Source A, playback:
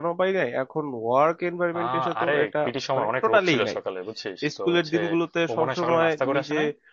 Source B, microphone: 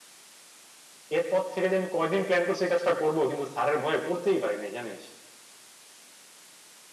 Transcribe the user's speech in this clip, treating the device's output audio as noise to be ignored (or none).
এরপর থেকে যে আমি কয়দিন প্ল্যান করছি এই কাজটা করবো কিন্তু স্যারের ভয়ে করতেই পারি নাই জানিস